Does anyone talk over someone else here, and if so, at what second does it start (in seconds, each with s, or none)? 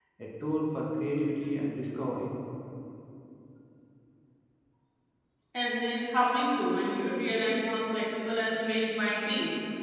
none